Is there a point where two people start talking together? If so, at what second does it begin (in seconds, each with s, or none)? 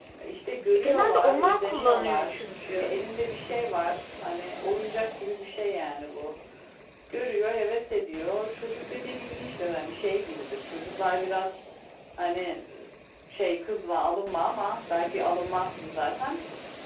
0.7 s